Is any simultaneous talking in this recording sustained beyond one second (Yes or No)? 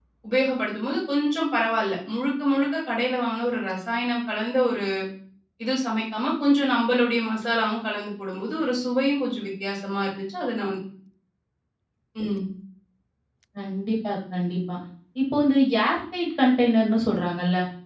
No